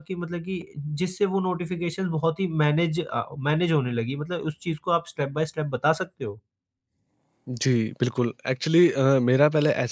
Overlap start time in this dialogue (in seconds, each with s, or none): none